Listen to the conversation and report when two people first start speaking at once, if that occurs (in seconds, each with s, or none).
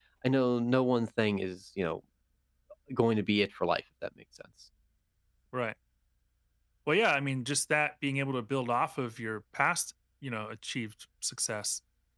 none